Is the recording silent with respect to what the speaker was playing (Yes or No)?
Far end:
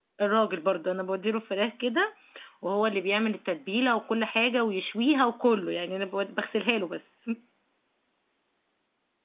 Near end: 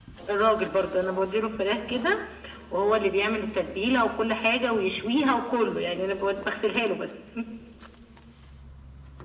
No